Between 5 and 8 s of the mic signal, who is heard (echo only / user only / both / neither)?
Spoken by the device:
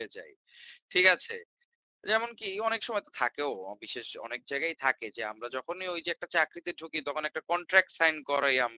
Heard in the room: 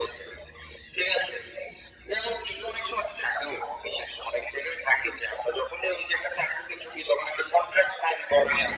echo only